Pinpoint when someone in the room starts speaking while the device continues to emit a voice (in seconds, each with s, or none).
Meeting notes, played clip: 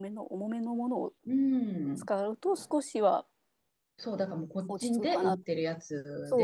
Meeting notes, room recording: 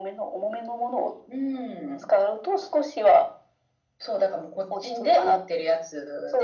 none